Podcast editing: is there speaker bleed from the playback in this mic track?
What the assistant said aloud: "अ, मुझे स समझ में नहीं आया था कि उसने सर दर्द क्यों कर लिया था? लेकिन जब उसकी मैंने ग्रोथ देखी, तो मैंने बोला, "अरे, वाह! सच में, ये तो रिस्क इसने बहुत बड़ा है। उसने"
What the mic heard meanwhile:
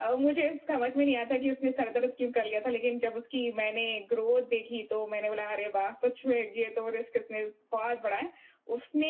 Yes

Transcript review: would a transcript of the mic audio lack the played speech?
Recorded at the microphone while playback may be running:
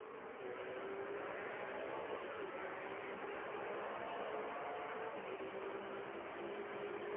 Yes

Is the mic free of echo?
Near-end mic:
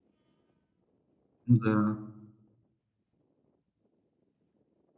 Yes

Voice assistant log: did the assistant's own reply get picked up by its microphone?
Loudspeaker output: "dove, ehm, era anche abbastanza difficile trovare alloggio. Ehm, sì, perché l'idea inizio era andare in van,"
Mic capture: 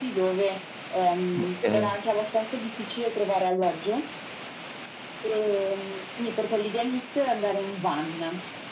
Yes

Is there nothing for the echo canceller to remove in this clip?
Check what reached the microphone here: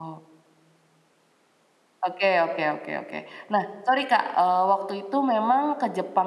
Yes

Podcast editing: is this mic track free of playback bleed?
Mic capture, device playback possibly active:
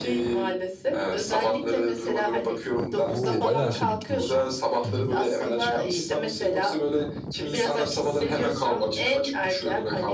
No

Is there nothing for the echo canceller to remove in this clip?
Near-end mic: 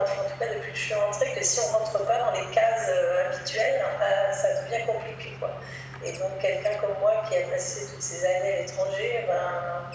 No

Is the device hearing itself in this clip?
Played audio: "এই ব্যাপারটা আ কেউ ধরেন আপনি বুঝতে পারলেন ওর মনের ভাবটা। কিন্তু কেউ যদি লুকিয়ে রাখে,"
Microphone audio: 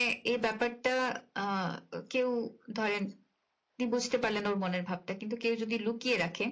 Yes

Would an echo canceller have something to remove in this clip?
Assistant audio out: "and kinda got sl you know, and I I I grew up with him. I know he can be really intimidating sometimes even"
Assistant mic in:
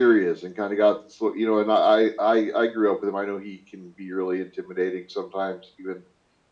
Yes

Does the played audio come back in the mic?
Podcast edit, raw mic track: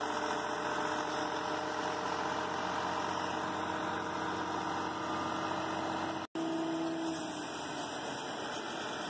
No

